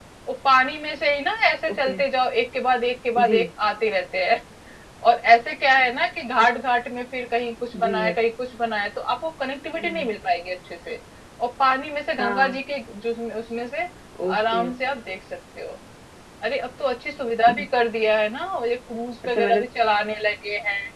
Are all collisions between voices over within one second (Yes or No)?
Yes